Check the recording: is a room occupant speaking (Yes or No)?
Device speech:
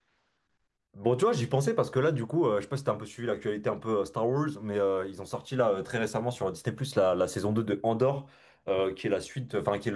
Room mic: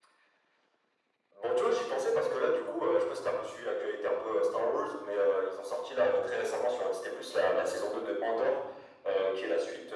No